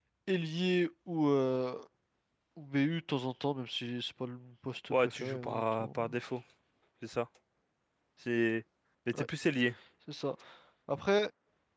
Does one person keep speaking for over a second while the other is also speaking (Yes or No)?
Yes